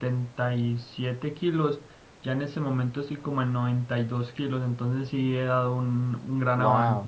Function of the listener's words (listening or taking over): taking over